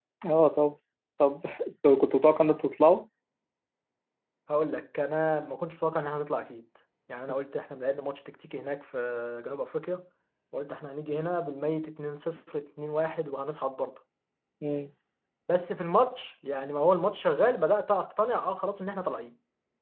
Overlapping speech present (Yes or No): No